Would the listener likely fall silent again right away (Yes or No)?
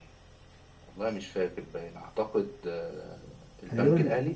No